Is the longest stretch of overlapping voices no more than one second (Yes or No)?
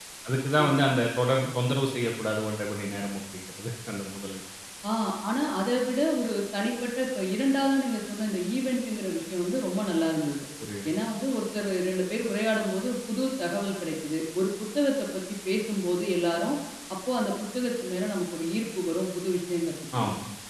Yes